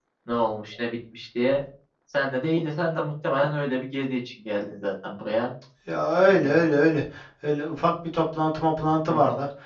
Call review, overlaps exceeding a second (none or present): none